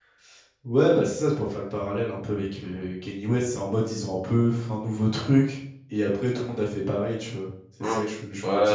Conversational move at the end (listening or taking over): taking over